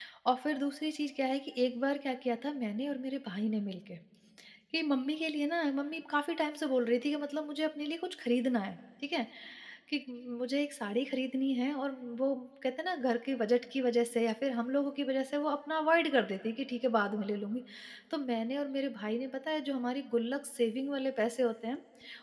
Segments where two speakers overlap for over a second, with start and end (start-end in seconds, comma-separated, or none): none